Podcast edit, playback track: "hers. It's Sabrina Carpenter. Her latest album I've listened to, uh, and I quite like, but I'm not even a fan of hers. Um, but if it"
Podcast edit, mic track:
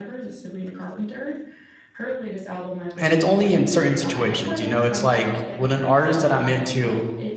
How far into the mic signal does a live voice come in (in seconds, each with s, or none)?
3.0 s